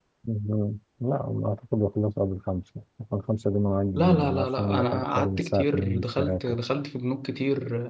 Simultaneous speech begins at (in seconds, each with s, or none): 4.0 s